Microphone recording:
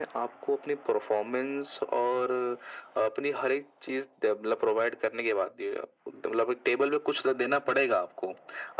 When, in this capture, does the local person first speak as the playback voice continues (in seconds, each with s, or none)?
none